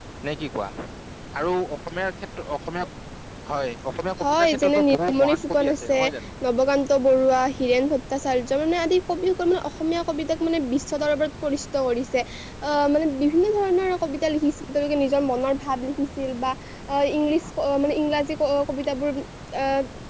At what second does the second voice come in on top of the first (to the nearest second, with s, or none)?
4 s